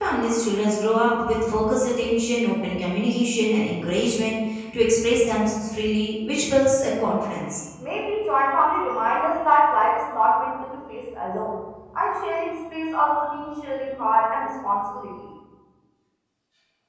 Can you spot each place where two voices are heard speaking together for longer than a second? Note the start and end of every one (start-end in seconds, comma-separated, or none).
none